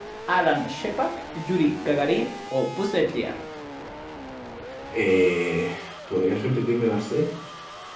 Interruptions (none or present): none